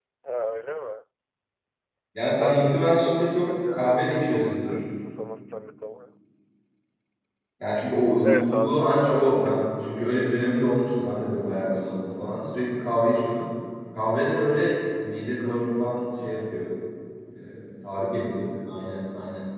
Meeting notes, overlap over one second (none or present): present